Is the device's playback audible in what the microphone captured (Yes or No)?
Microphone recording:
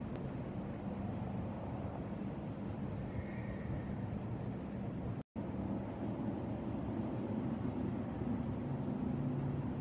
No